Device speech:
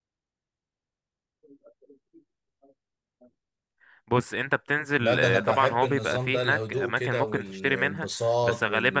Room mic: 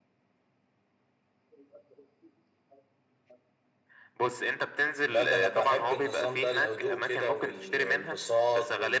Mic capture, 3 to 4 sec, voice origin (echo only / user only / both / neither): neither